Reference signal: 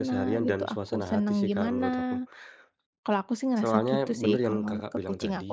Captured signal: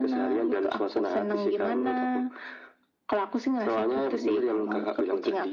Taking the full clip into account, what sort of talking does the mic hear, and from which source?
echo only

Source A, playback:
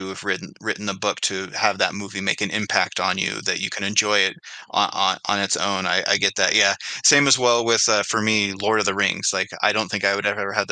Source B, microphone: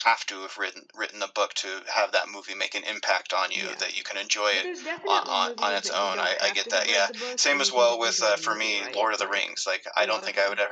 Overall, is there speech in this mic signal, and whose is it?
both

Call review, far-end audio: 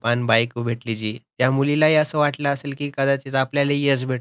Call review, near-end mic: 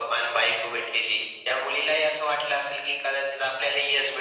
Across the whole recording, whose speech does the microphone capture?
echo only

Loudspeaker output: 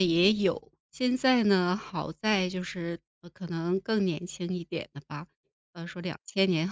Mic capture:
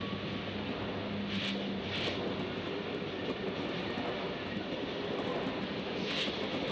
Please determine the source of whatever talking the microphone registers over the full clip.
neither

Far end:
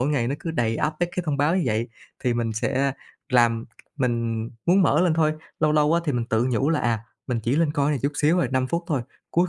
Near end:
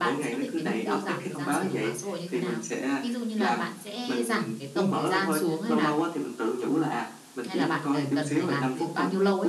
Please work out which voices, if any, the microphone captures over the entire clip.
both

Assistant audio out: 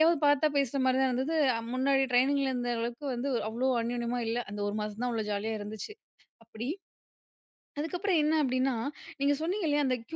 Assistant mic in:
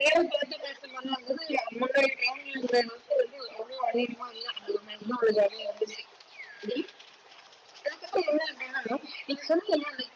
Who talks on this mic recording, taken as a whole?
echo only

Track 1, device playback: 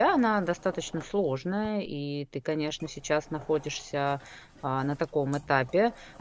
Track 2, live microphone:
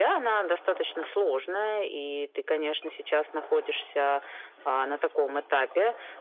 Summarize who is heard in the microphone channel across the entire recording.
echo only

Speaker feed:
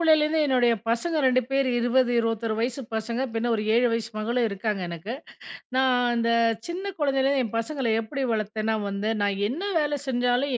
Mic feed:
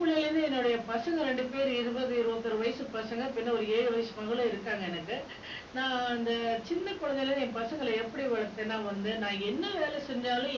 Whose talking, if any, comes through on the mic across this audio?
echo only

